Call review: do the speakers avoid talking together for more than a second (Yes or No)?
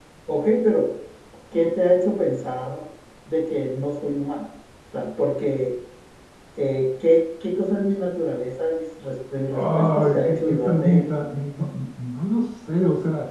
No